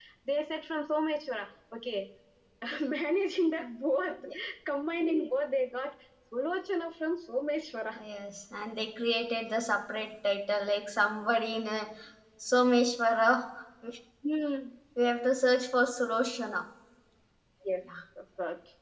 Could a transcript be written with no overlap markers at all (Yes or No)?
Yes